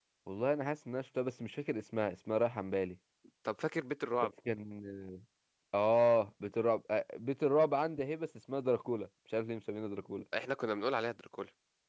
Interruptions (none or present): none